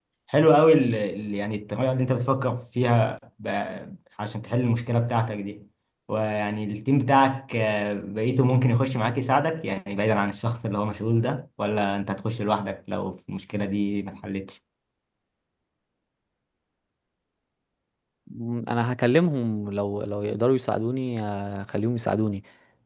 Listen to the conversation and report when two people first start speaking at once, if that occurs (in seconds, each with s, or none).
none